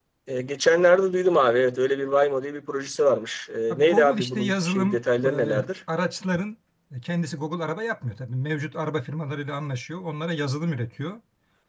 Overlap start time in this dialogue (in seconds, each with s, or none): 3.7 s